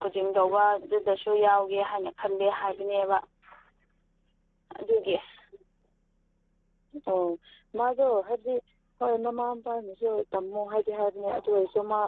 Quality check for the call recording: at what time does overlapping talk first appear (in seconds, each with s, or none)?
none